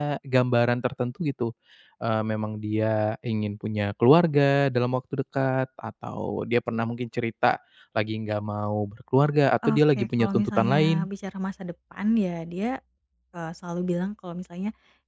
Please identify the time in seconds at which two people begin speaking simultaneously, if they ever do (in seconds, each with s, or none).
9.6 s